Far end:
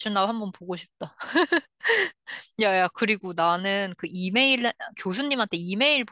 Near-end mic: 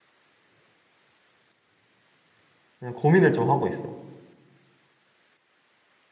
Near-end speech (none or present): present